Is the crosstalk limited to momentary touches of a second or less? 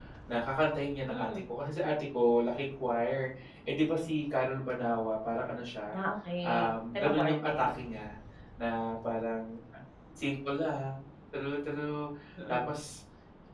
No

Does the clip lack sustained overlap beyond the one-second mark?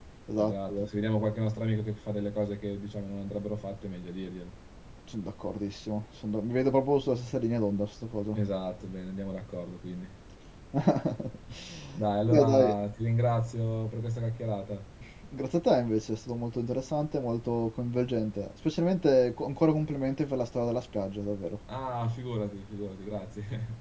Yes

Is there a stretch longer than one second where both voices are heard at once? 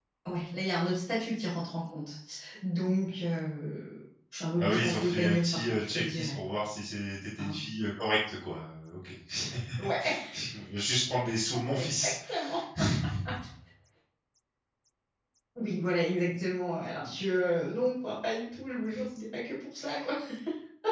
Yes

